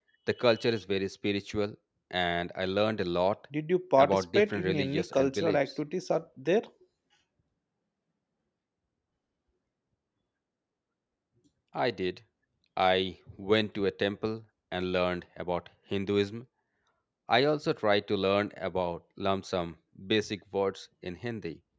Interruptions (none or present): present